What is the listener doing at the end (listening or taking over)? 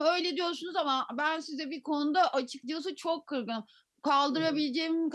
listening